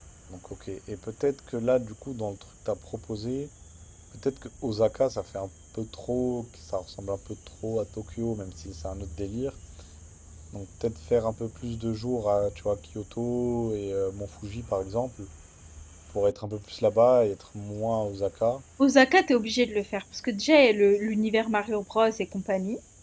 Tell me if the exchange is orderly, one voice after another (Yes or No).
Yes